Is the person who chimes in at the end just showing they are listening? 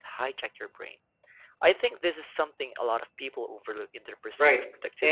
No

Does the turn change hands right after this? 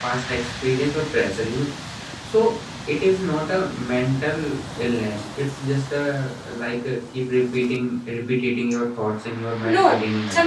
Yes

